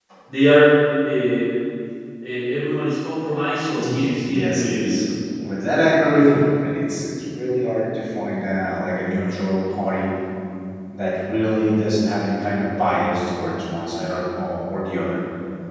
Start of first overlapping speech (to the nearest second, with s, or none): 4 s